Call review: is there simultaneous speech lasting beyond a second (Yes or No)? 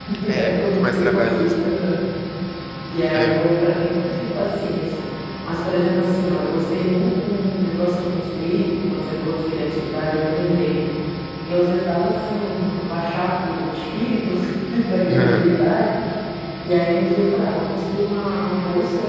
Yes